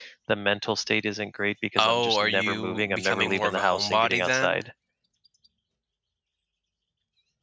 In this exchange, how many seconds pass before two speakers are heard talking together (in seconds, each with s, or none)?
1.8 s